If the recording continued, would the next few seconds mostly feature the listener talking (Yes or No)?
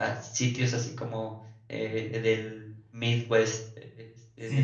Yes